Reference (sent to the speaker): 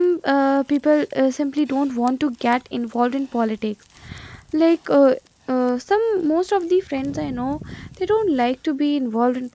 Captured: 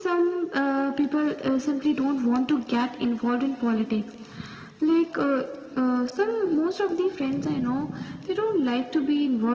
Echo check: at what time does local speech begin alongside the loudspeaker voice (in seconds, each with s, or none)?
none